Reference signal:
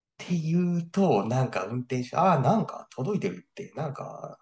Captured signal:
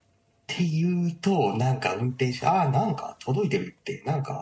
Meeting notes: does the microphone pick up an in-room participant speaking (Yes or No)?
No